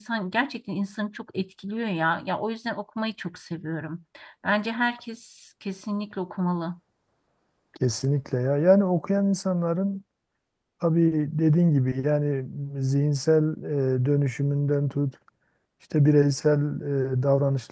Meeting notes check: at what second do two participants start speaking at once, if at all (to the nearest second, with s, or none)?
none